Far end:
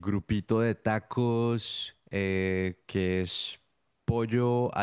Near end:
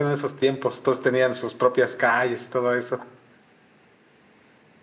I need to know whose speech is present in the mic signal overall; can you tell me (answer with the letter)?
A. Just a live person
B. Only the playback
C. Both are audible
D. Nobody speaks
A